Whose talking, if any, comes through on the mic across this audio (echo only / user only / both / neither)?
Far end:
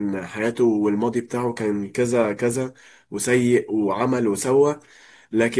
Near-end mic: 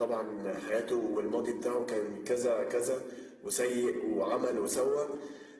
echo only